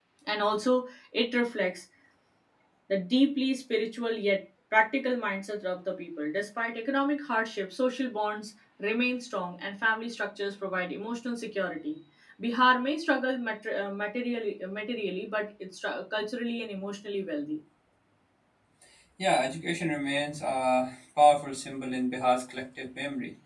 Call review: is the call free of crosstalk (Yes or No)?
Yes